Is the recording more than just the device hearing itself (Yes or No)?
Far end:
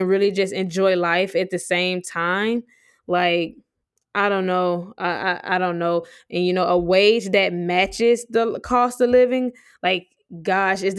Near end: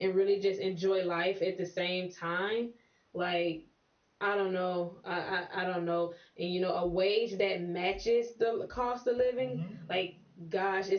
Yes